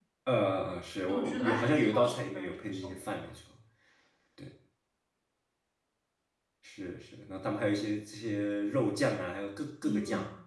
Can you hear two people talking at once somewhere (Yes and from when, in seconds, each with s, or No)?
Yes, from 1.1 s